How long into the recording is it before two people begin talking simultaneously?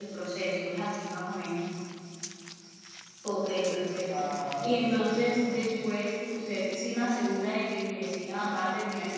4 s

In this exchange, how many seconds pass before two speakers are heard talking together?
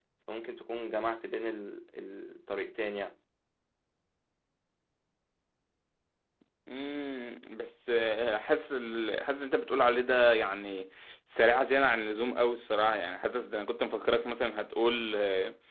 none

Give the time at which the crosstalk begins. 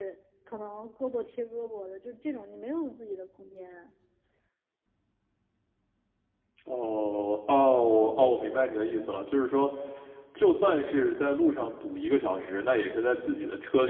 none

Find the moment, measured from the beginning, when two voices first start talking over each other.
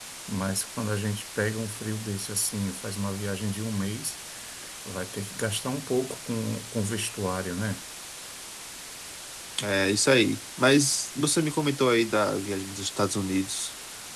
none

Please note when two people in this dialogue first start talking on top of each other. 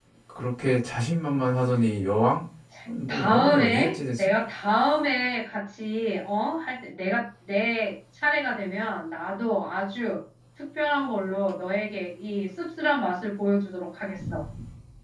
3 s

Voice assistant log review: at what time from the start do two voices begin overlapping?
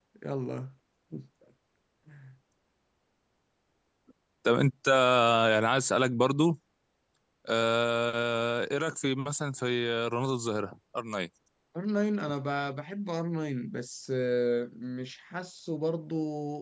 none

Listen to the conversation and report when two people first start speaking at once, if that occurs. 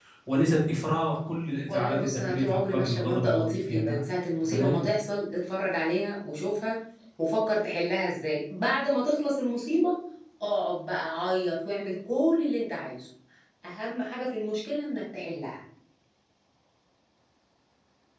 2 s

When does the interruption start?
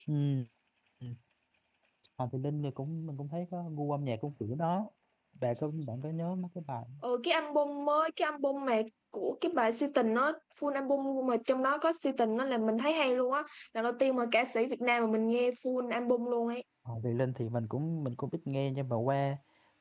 none

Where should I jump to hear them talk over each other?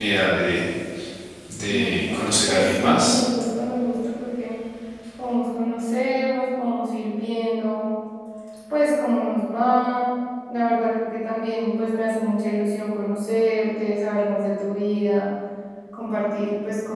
2 s

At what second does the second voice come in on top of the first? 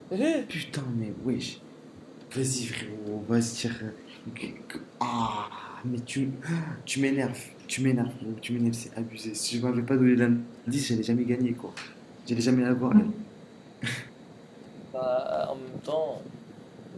none

